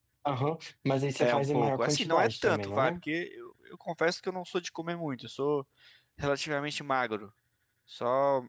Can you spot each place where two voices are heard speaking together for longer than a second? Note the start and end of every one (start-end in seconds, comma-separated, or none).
1.2-3.0